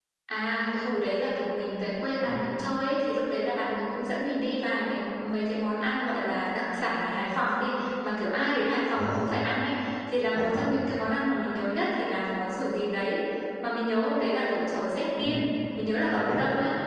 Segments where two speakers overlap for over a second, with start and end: none

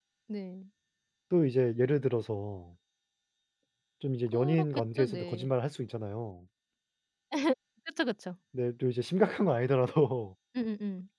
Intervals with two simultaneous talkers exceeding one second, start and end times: 4.3-5.5

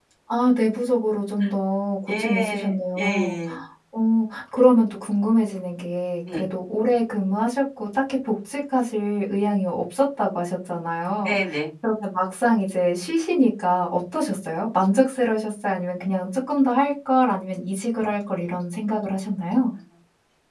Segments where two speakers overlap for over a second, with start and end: 2.1-3.4

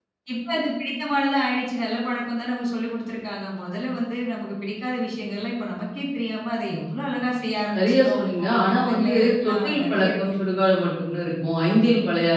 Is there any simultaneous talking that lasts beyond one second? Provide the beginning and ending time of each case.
7.8-10.2

